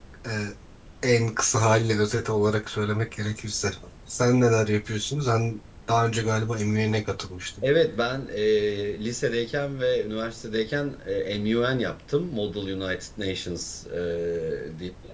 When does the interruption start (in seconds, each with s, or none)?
none